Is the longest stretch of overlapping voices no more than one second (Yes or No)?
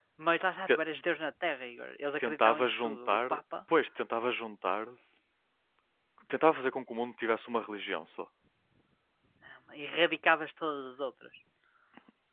No